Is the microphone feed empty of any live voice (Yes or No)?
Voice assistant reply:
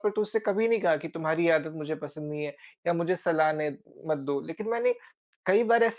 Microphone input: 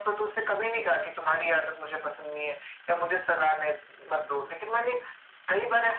Yes